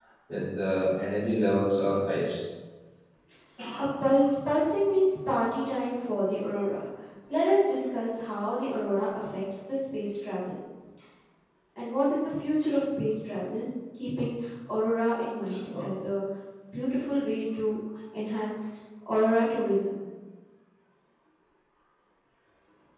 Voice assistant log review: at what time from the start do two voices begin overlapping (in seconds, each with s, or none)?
none